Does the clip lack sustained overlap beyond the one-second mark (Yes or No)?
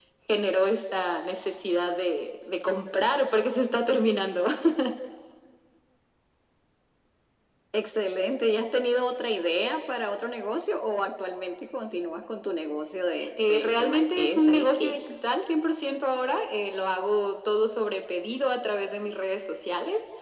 No